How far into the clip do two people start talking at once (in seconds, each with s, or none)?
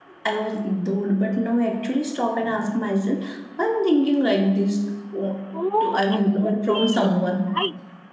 5.8 s